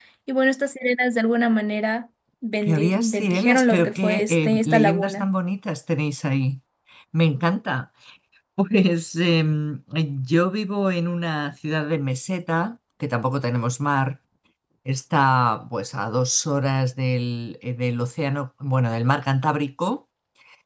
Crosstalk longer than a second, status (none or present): present